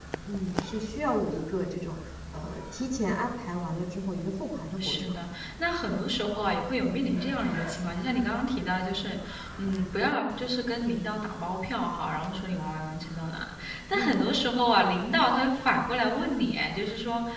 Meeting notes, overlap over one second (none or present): none